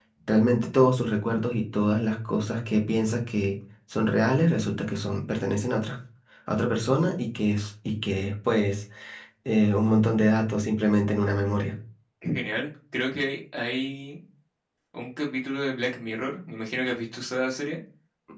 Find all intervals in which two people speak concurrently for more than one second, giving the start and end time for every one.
none

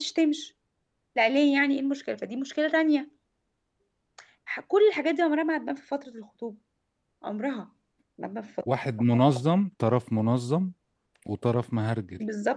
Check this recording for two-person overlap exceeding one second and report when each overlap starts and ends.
none

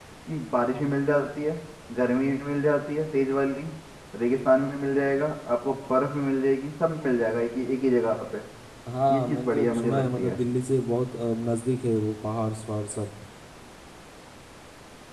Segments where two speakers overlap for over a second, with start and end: 9.1-10.4

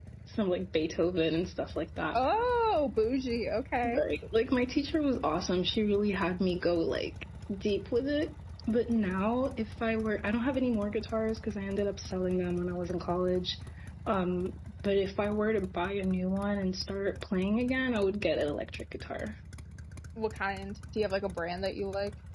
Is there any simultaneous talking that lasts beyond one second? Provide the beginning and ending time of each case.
none

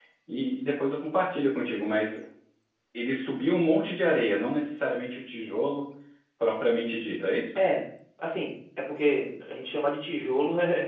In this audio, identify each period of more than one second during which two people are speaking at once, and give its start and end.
none

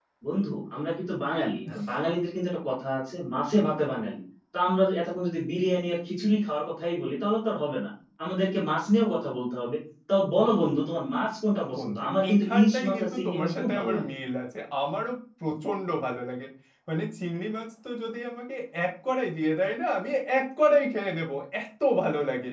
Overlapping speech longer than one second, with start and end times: 11.8-14.1

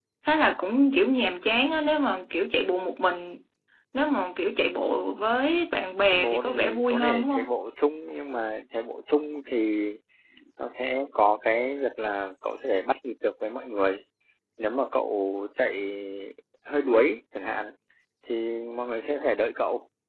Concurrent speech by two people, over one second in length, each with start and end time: 6.1-7.5

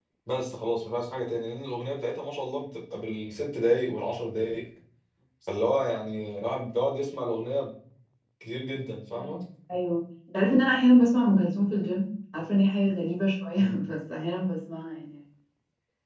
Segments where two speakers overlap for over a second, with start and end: none

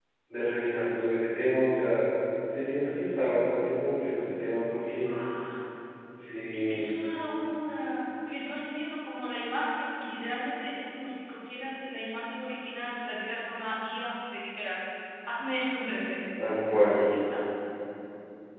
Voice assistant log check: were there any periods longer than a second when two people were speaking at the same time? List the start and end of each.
none

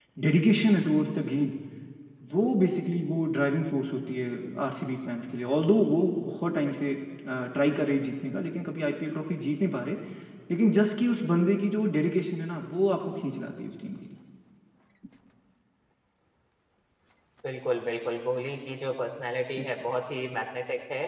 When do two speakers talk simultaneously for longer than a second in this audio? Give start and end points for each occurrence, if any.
none

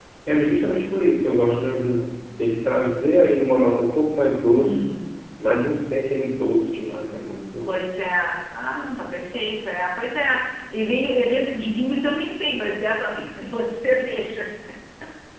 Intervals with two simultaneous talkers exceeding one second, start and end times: none

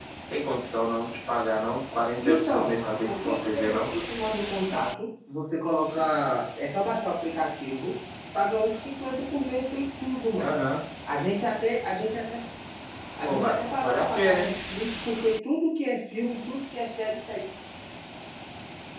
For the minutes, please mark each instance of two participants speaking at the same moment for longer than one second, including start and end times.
2.2-3.9, 13.2-14.5

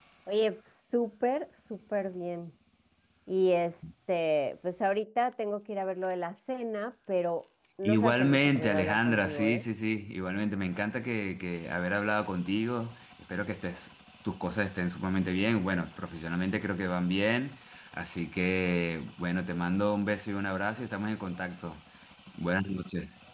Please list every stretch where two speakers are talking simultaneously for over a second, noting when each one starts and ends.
7.9-9.6

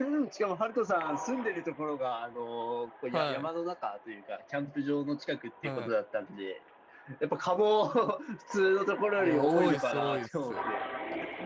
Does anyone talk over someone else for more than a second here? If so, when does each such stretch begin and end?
9.2-10.6

